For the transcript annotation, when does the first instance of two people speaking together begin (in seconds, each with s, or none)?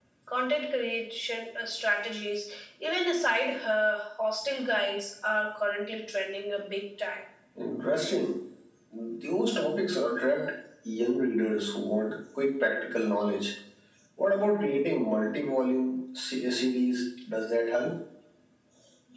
none